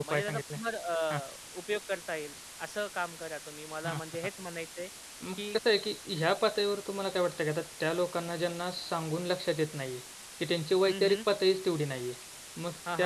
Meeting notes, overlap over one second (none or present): none